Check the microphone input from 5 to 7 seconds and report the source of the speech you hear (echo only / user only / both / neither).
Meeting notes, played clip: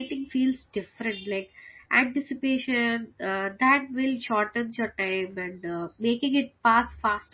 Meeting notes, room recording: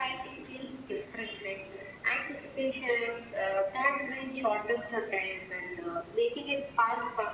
echo only